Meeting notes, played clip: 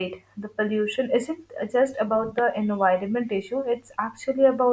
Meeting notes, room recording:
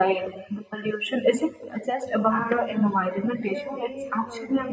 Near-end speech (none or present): present